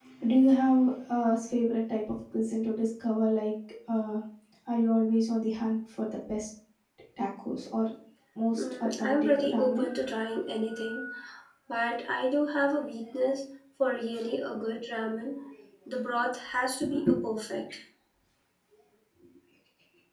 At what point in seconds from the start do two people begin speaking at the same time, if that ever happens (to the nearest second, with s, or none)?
9 s